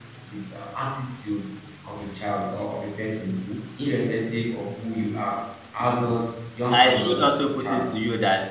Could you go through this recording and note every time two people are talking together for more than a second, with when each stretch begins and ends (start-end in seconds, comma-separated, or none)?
none